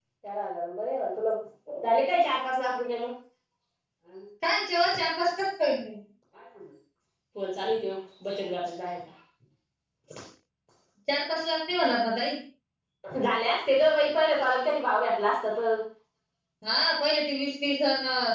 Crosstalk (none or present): none